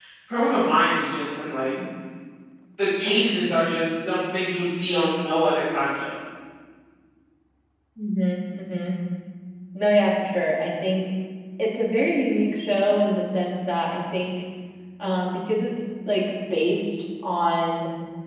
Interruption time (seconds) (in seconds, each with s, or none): none